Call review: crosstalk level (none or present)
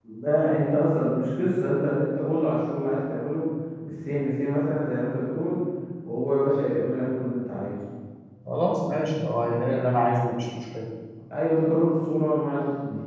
none